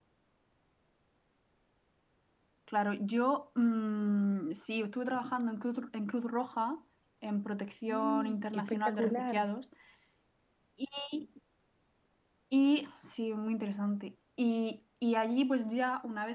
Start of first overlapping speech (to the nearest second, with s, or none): 8 s